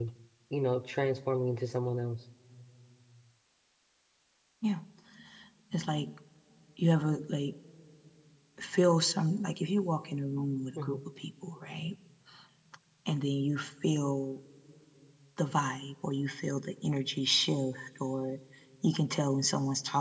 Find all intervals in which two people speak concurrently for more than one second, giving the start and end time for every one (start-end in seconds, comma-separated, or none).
none